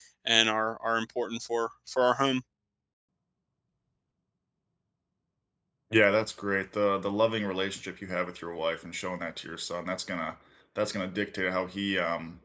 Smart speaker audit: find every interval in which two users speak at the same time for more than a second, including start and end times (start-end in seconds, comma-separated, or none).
none